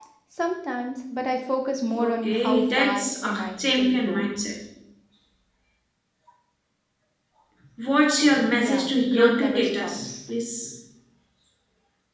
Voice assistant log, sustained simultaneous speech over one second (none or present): present